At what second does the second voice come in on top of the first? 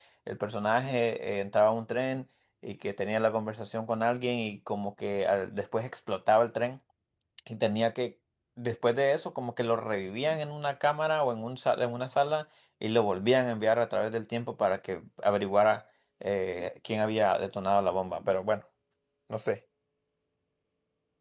none

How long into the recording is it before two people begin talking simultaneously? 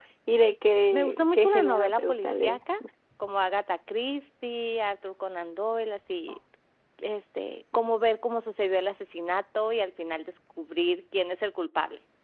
0.9 s

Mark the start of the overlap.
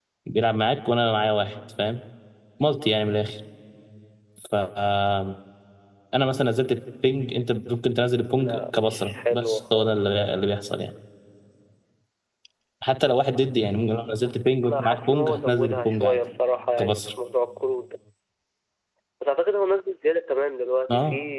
8.3 s

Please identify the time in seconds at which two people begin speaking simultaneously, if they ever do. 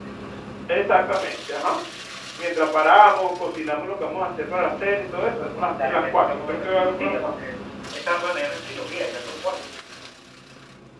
5.7 s

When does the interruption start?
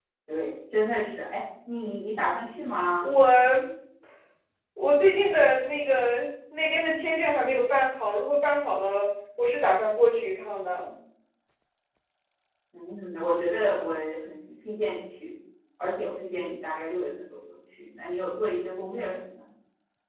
none

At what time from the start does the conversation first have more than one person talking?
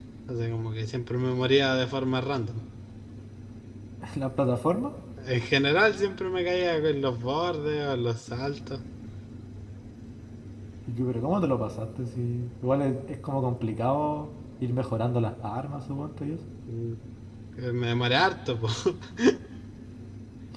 none

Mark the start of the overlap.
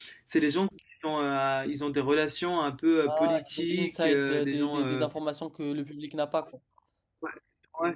3.1 s

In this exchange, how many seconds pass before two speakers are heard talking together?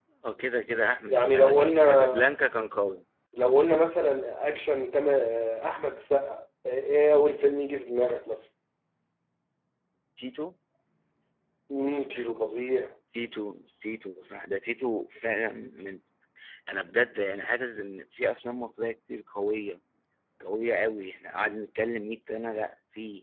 1.1 s

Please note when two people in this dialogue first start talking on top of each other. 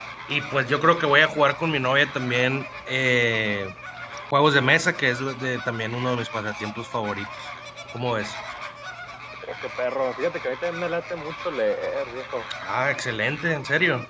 none

